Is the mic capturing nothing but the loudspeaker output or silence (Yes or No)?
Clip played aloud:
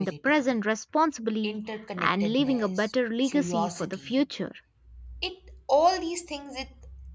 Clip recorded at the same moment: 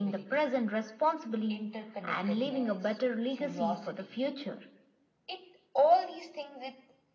Yes